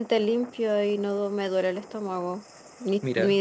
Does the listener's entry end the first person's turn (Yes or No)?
No